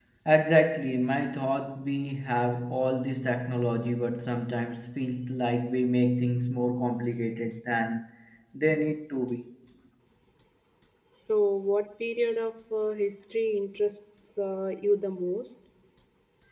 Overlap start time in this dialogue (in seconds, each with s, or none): none